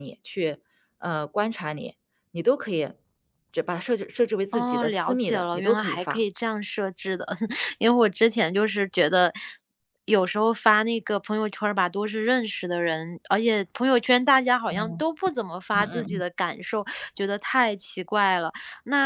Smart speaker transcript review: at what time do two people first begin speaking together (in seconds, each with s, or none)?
4.5 s